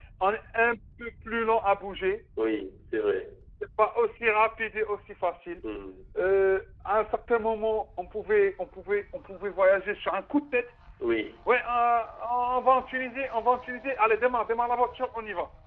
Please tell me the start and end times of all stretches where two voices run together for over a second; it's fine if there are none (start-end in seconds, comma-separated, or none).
none